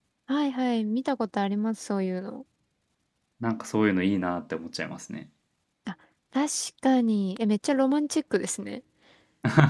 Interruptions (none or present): none